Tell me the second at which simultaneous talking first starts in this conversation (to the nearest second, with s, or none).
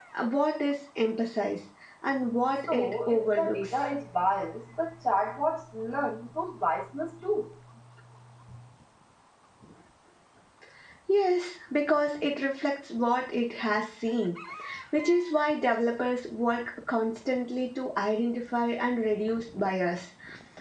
3 s